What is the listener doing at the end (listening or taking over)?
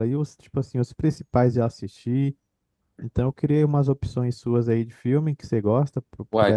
taking over